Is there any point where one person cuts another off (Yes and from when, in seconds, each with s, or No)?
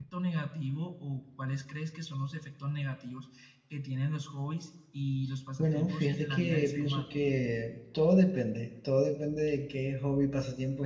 Yes, from 5.6 s